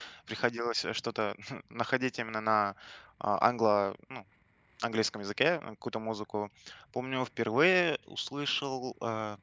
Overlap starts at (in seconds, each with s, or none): none